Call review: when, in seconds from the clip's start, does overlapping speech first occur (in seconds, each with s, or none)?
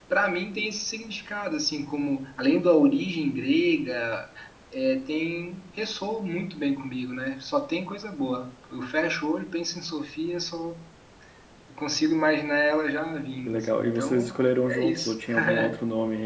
13.4 s